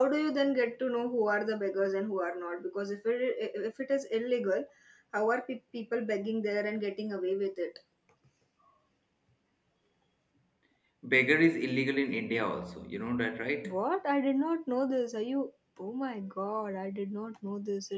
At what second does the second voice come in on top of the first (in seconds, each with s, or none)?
none